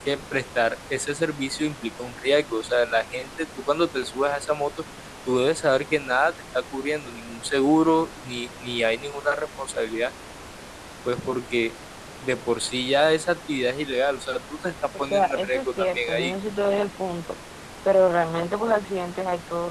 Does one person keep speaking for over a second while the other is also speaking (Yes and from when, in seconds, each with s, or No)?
Yes, from 14.9 s